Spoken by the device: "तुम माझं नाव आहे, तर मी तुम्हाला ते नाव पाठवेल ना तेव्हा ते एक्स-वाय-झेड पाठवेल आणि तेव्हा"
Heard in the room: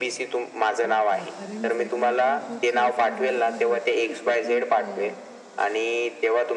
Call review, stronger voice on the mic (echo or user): echo